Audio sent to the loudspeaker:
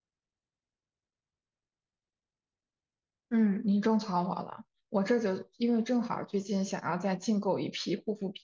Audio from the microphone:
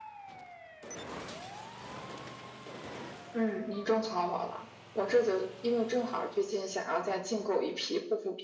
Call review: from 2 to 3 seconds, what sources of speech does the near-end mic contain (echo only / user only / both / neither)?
neither